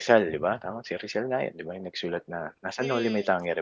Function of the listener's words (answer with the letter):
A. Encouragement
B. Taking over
B